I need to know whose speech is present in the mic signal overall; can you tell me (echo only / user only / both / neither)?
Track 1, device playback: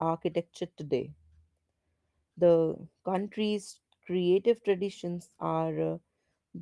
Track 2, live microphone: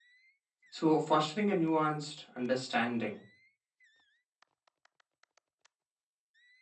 user only